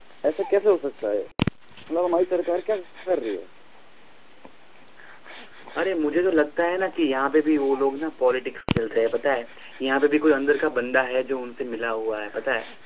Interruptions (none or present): none